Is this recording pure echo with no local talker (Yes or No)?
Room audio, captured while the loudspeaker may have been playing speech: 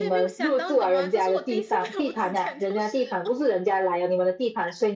No